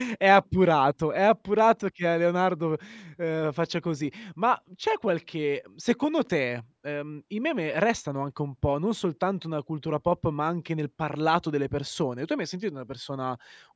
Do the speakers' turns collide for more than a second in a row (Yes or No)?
No